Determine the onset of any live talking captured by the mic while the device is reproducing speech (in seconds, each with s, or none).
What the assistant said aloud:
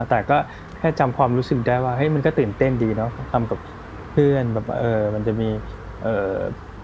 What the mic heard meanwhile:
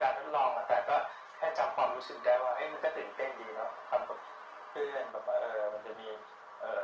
none